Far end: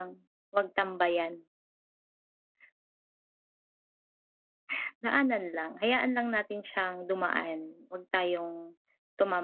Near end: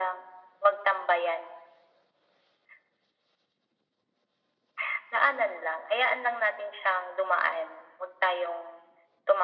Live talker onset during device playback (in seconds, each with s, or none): none